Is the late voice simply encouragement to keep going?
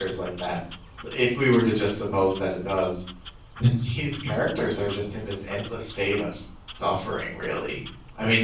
Yes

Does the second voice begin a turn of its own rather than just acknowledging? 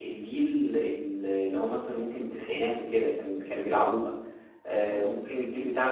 No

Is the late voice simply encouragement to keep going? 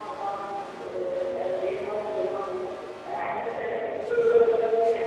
Yes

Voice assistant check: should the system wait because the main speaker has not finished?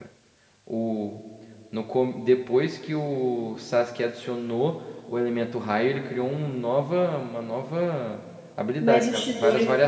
No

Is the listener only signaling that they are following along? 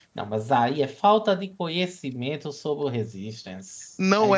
No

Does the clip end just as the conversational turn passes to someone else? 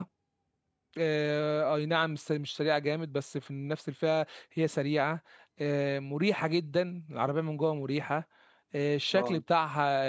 No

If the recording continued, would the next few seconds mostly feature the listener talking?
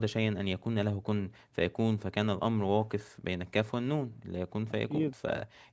No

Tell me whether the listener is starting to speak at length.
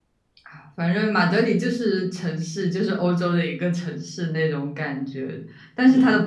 No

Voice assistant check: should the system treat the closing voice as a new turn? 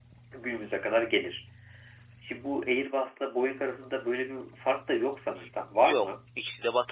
Yes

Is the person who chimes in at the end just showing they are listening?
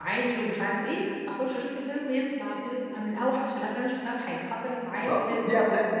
No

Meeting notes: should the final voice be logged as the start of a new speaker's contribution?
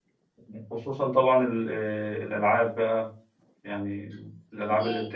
No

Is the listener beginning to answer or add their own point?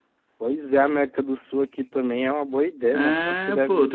Yes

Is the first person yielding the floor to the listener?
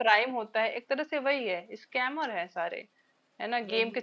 No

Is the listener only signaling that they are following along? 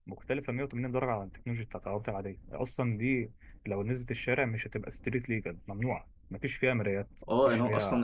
No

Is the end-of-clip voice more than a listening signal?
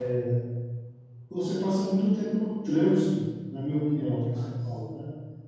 No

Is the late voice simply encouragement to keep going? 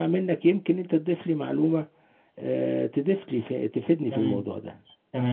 No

